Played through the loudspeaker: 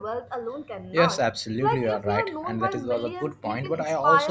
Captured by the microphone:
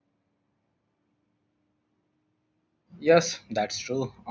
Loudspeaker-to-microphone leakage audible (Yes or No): No